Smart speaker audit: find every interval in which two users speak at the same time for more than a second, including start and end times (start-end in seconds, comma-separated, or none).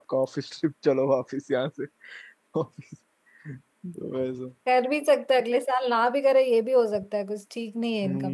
none